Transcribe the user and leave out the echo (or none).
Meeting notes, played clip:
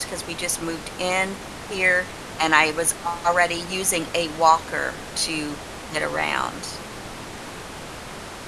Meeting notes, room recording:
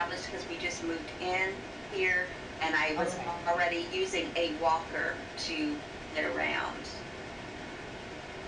Okay.